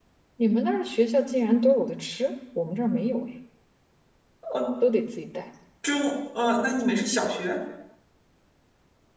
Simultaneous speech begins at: none

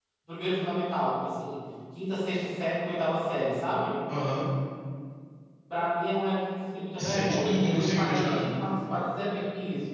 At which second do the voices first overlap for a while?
7.0 s

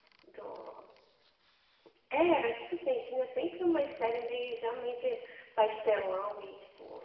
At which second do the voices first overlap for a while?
none

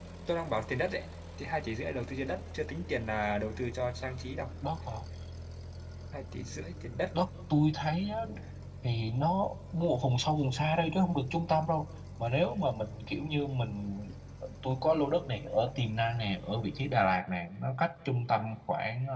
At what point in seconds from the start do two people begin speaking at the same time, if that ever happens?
none

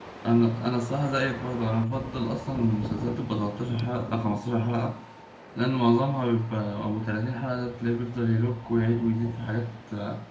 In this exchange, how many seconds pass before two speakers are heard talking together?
none

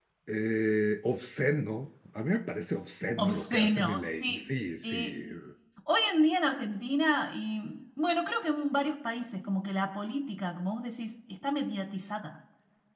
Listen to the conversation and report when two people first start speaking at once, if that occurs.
3.2 s

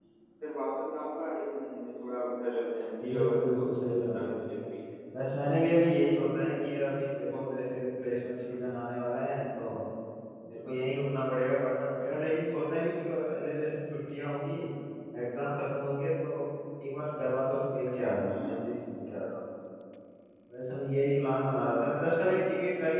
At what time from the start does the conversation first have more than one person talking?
3.1 s

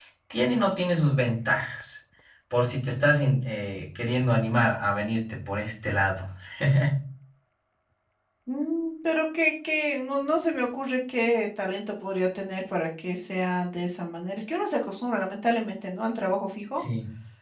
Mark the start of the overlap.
none

